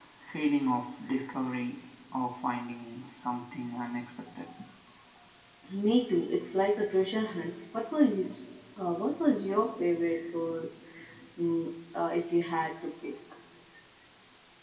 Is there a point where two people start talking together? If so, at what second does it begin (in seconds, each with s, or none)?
none